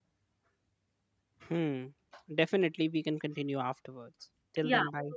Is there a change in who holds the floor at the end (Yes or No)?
Yes